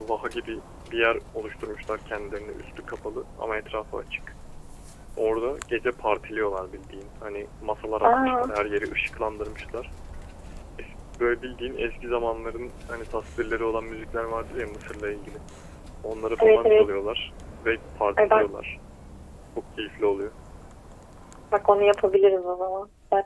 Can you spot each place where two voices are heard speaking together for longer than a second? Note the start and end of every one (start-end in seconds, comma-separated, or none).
none